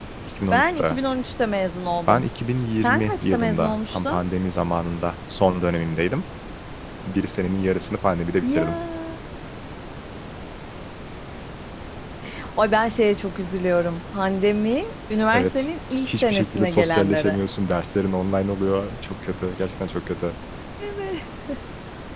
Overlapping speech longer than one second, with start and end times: 2.8-4.2, 16.1-17.4

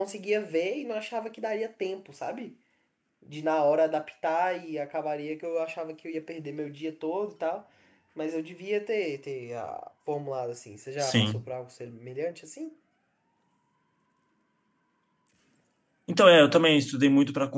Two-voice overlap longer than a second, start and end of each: none

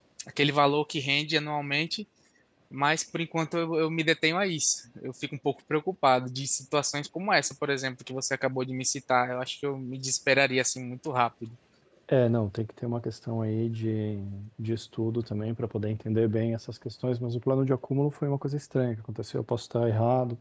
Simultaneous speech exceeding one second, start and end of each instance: none

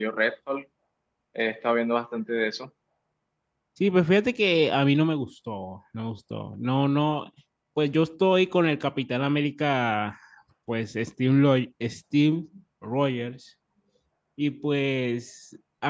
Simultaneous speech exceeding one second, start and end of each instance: none

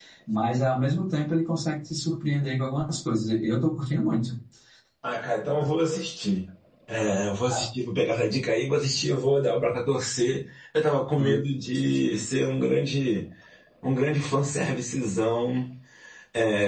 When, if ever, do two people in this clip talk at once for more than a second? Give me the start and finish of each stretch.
none

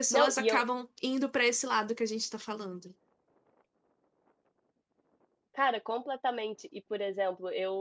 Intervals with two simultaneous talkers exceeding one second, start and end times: none

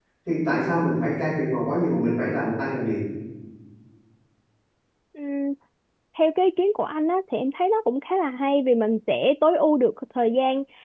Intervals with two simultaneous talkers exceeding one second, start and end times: none

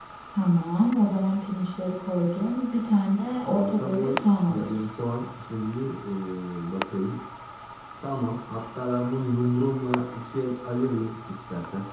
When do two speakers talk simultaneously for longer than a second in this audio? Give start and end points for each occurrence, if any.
3.2-4.9

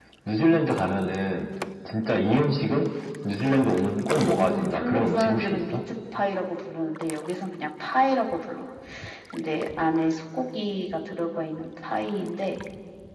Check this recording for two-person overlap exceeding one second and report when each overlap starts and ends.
4.2-5.8

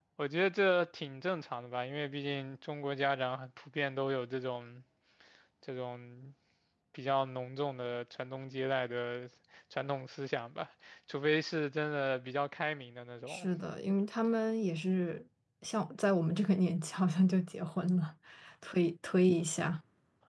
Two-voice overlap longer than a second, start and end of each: none

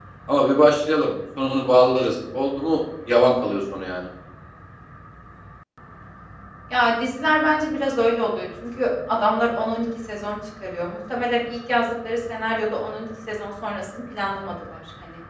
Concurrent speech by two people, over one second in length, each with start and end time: none

